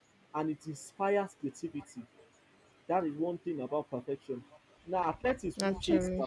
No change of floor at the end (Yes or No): Yes